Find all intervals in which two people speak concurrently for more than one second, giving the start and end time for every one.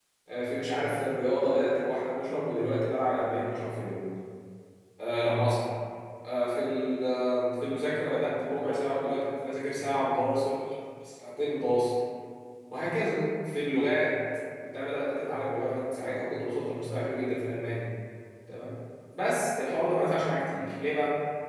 none

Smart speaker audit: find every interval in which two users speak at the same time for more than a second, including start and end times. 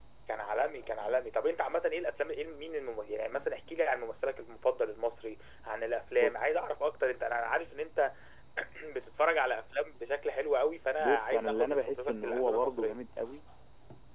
11.0-13.0

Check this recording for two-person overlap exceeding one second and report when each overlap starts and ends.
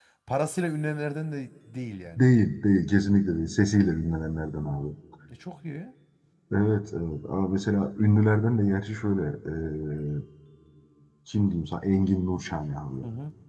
none

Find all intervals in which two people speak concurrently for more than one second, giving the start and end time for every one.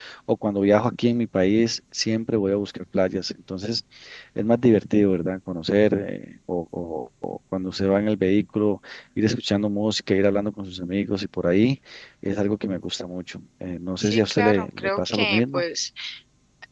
14.0-15.6

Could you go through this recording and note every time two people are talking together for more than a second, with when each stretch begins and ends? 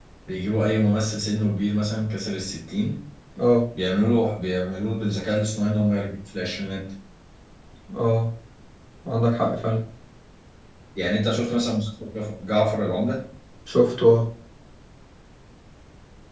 none

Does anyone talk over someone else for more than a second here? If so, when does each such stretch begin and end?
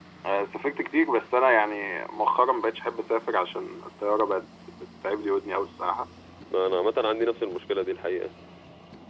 none

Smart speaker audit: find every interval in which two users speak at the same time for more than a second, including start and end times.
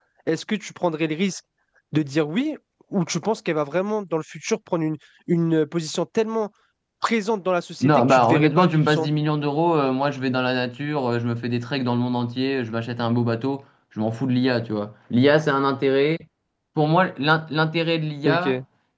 7.8-9.1

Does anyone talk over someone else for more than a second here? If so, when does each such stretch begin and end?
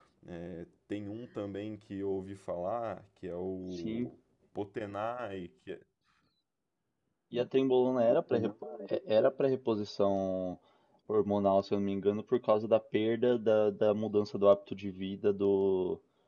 none

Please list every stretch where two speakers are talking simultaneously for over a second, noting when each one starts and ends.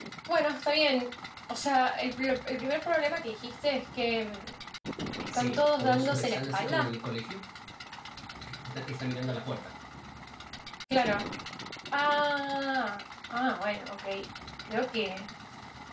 5.3-6.9

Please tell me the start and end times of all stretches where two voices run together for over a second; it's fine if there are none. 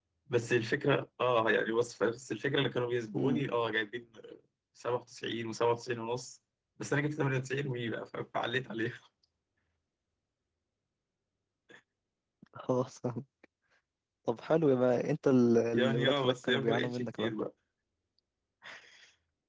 15.7-17.3

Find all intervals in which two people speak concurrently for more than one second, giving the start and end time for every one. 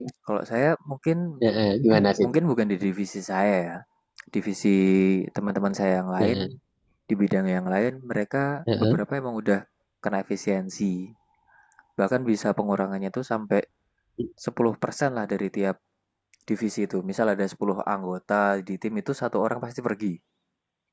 none

